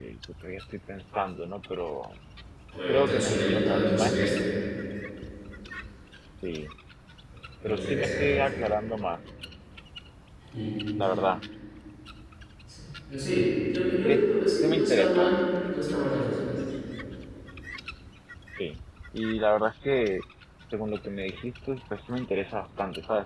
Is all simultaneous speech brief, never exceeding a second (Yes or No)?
No